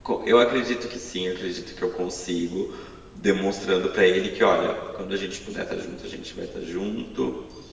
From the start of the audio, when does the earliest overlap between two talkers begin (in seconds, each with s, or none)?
none